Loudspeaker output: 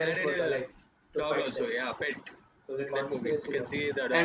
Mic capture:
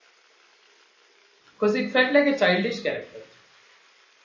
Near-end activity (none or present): present